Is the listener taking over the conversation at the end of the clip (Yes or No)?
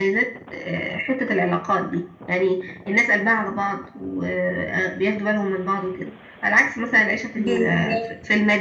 No